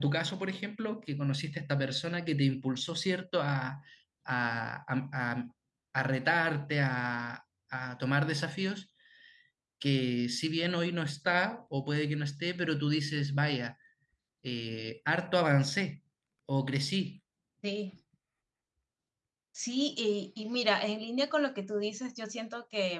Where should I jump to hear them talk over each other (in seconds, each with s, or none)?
none